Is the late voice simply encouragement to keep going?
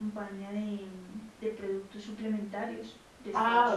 No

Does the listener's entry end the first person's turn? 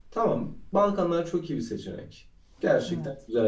No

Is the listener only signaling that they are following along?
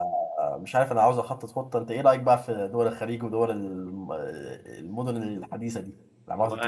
No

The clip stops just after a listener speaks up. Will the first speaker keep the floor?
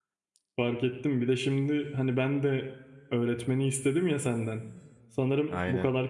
Yes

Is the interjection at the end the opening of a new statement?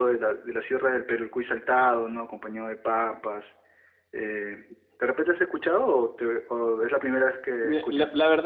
Yes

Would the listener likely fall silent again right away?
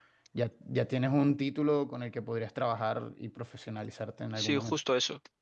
No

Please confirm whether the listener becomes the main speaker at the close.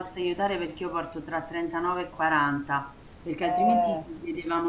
No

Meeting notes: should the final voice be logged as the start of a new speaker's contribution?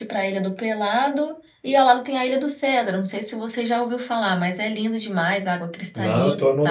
Yes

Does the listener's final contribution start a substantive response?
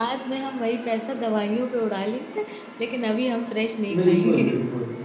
Yes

